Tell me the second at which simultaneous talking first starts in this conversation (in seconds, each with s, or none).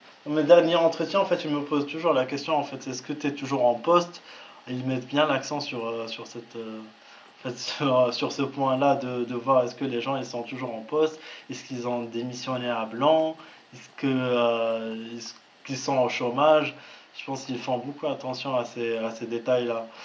none